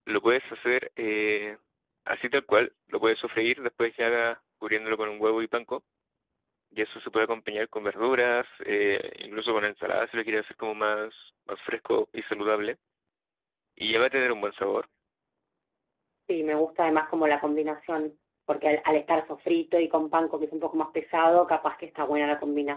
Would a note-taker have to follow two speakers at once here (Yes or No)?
No